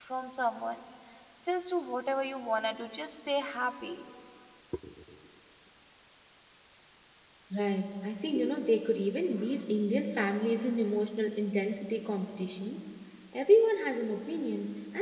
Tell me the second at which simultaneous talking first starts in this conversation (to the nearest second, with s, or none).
none